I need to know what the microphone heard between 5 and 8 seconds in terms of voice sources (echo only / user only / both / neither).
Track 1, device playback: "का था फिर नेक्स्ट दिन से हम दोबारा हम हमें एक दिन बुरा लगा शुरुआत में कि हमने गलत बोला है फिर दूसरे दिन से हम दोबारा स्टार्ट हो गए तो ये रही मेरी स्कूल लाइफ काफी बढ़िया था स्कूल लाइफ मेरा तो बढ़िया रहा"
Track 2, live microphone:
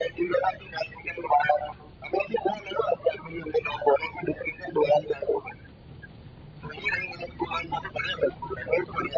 echo only